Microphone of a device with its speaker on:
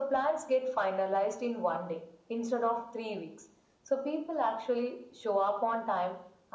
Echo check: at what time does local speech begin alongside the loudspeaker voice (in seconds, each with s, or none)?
none